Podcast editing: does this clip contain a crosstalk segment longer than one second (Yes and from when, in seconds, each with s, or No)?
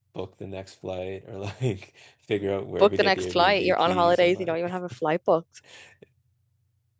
Yes, from 2.8 s